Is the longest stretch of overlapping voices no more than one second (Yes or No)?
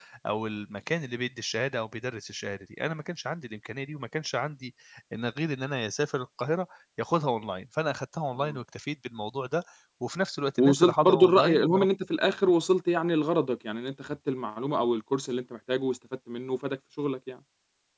No